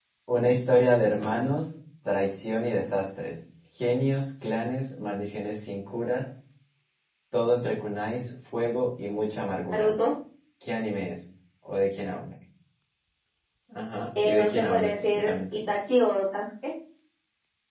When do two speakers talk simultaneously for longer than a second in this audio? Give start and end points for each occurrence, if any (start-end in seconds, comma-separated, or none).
14.2-15.6